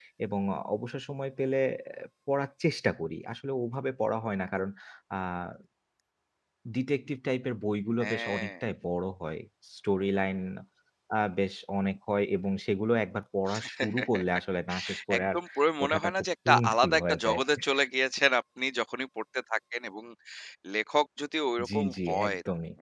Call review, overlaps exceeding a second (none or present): present